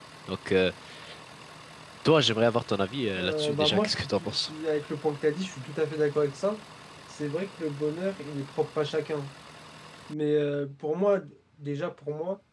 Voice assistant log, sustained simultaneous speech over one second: present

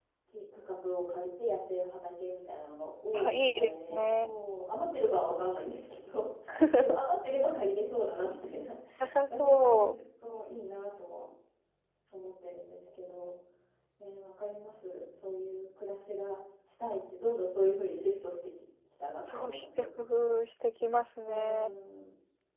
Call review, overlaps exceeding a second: present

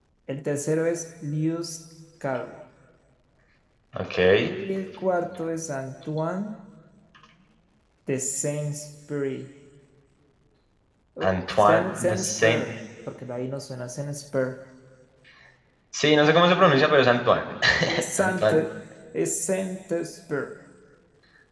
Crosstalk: present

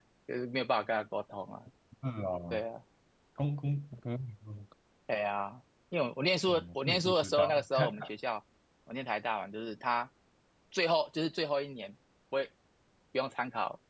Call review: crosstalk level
present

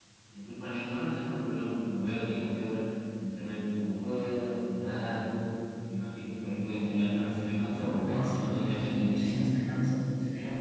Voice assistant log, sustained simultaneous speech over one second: present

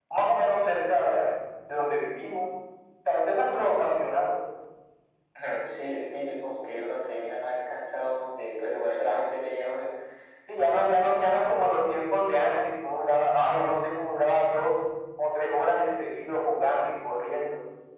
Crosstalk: none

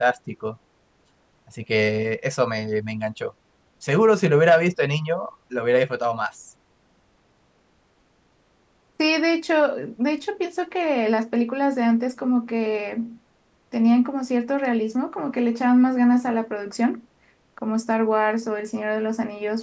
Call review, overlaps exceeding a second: none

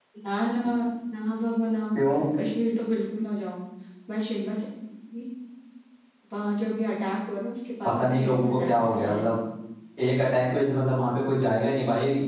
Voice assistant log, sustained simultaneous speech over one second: present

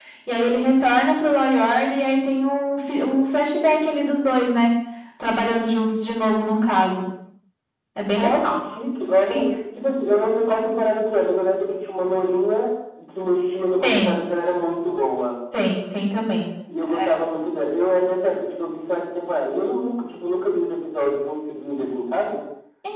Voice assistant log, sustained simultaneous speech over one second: none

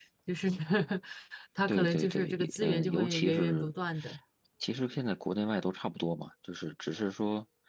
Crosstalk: present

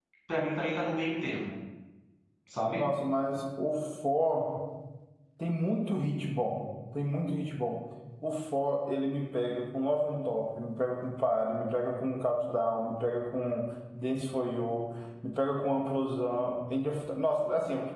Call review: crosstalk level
none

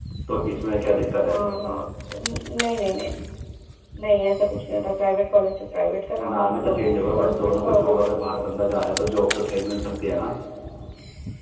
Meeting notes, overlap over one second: present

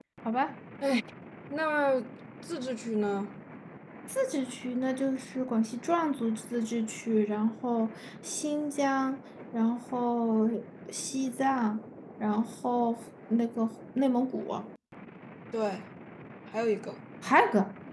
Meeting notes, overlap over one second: none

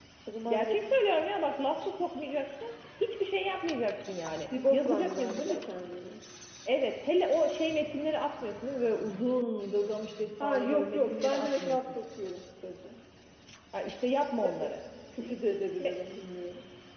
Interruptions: present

